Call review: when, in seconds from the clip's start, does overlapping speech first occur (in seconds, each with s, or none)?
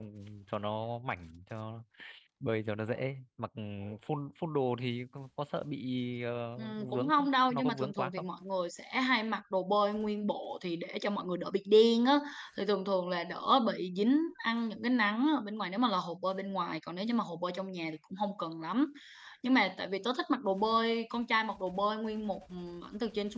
6.6 s